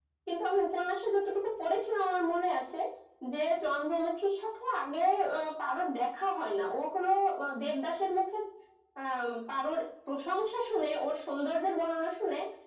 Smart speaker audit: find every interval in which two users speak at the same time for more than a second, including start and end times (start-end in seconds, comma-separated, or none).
none